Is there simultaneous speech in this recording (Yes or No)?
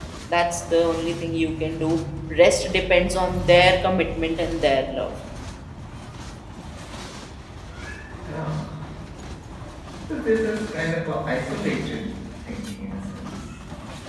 No